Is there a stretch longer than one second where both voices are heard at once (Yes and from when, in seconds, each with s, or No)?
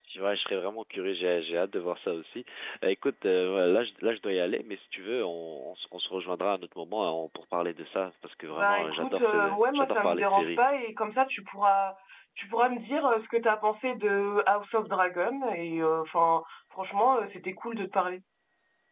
Yes, from 8.5 s